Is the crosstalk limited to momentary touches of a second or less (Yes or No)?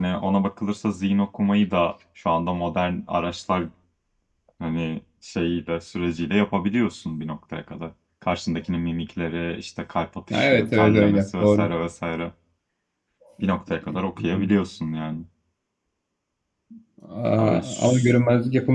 No